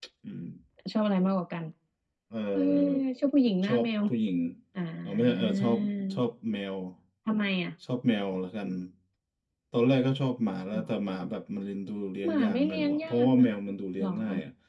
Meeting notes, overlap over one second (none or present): present